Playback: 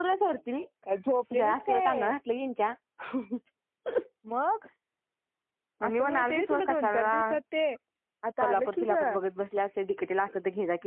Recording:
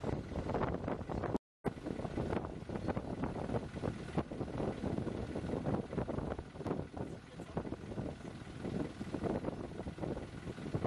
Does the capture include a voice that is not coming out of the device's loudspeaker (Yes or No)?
No